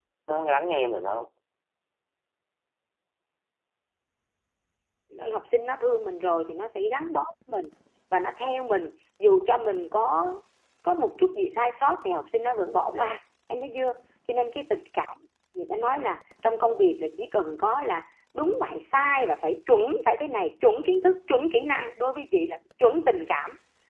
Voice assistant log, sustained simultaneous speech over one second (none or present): none